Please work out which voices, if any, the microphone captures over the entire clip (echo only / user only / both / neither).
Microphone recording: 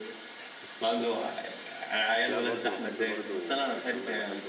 both